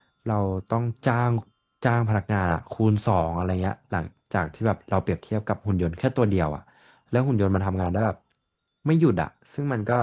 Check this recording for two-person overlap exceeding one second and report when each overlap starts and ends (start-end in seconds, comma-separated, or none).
none